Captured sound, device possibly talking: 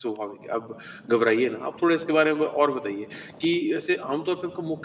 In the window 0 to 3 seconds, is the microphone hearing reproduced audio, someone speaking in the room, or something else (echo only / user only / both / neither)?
user only